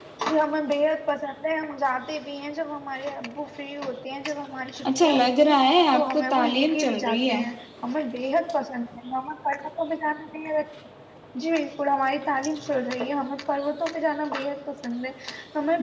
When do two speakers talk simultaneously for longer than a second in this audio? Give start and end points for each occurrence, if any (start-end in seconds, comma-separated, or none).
5.0-7.4